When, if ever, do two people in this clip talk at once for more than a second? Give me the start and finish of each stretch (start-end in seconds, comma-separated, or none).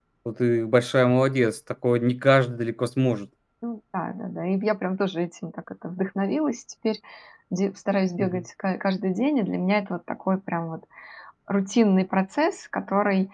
none